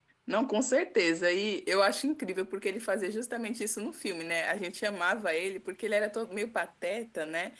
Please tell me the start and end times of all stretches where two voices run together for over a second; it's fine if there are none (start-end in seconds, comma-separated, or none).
none